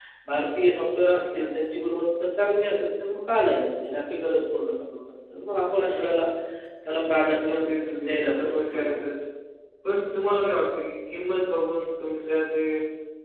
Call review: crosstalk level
present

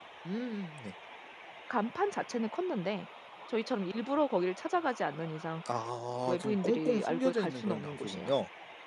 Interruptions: present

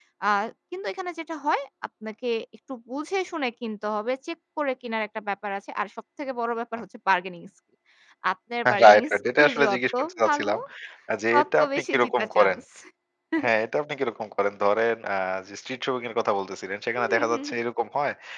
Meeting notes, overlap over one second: present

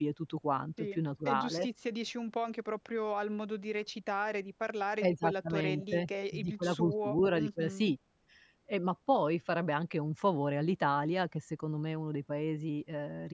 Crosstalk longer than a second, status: present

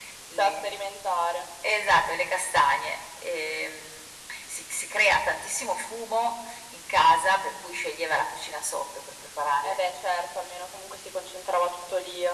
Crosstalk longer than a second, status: none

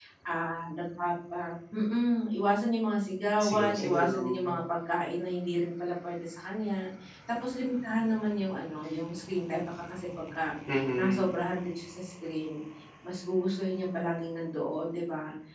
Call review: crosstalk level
present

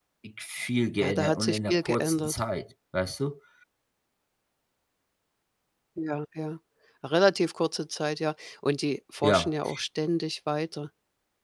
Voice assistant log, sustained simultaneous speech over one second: present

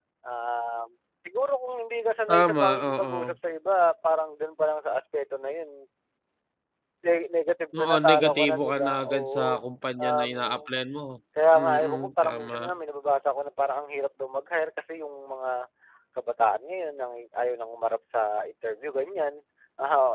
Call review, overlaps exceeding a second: present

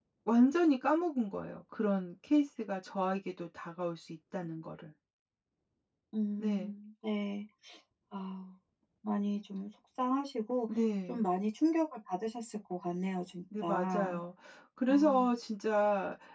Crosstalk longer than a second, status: none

